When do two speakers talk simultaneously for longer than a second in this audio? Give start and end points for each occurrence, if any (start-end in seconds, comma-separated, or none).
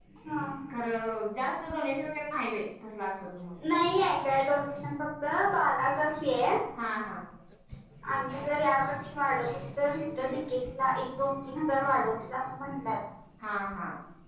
none